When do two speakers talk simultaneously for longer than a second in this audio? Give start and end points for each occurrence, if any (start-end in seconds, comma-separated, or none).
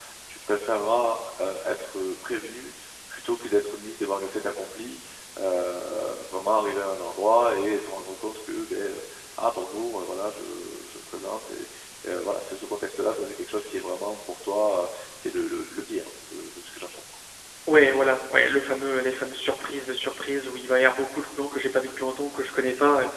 none